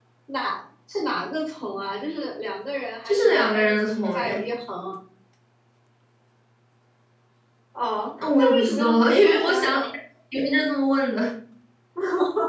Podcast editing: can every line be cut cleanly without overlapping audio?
No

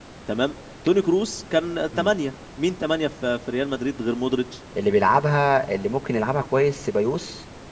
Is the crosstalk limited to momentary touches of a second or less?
Yes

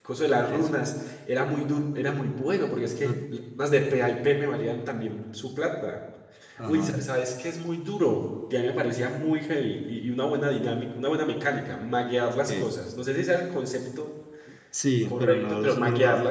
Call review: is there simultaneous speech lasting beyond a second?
Yes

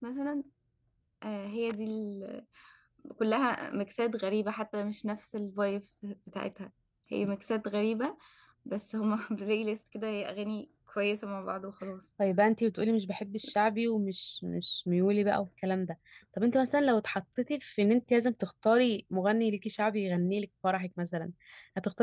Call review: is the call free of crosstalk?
Yes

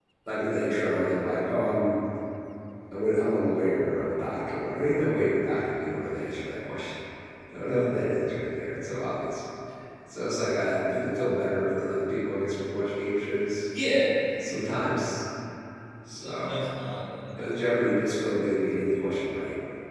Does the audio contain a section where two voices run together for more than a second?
No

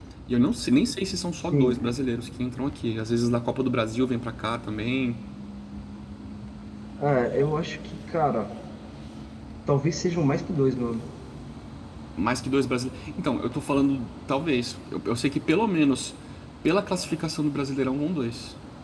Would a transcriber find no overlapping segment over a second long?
Yes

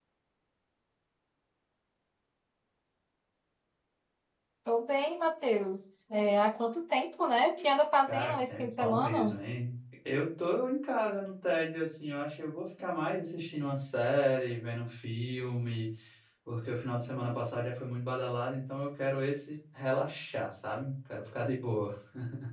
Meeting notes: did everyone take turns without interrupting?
No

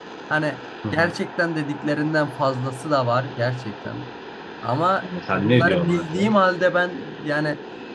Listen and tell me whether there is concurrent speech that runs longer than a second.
Yes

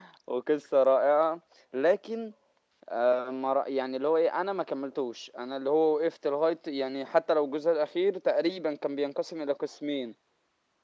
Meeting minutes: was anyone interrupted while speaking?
No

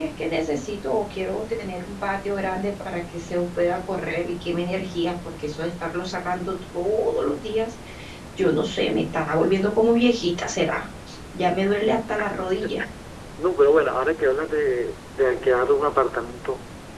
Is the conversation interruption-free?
Yes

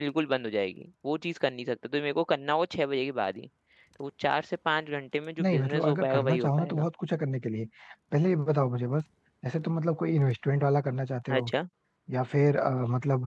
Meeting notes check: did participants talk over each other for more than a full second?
Yes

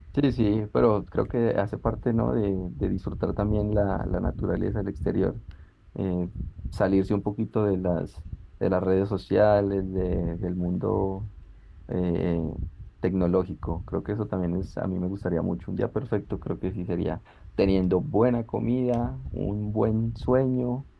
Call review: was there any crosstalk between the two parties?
No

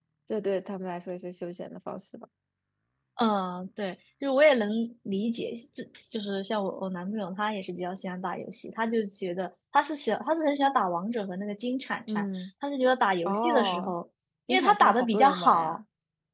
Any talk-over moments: Yes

